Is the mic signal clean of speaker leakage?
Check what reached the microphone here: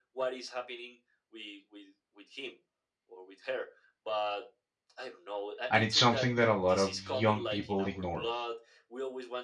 No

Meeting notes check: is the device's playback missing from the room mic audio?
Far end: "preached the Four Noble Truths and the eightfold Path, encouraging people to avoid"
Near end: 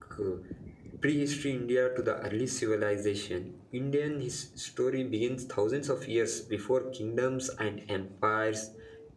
Yes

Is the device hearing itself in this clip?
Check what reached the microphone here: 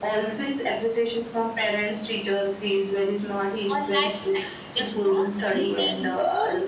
Yes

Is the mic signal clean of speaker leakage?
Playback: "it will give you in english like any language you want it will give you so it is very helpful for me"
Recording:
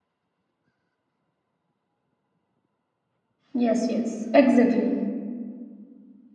Yes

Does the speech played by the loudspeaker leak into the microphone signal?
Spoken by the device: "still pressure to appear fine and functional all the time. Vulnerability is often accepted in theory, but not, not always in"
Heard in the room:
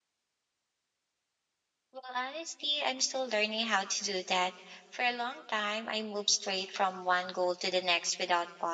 No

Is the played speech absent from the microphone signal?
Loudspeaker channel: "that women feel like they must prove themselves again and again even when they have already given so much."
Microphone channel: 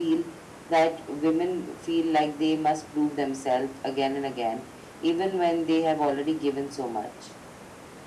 No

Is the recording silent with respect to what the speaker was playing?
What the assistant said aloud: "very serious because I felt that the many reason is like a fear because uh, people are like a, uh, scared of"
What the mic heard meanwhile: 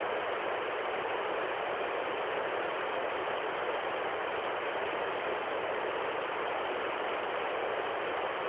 Yes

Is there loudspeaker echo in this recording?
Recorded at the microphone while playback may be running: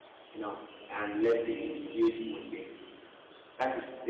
No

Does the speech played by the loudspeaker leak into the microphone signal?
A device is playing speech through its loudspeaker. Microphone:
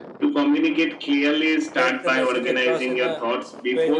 Yes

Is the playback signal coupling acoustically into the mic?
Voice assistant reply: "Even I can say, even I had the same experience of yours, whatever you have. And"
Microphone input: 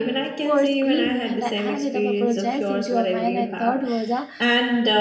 Yes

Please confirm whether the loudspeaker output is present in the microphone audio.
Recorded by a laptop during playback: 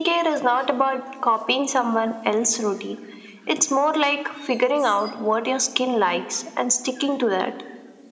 Yes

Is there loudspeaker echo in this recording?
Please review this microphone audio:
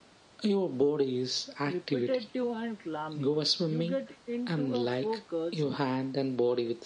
Yes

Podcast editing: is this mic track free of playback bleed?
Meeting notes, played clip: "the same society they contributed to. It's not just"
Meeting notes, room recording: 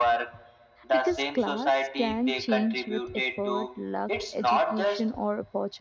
No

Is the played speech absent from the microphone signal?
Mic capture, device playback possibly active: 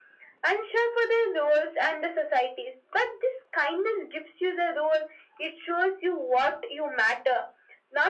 No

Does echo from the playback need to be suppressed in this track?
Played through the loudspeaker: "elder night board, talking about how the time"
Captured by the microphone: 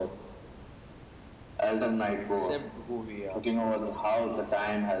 Yes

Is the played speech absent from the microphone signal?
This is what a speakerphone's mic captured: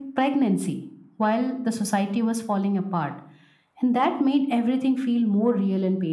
No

